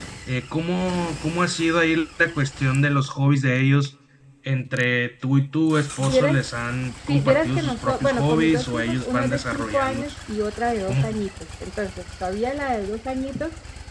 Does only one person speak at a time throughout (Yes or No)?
No